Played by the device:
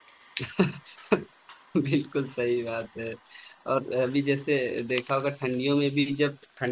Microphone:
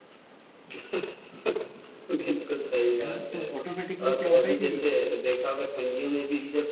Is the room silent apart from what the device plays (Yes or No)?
No